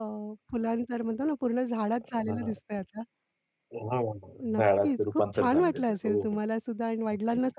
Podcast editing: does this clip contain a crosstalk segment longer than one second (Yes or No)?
Yes